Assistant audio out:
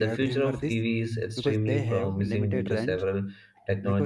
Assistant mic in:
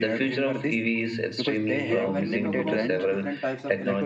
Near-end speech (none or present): present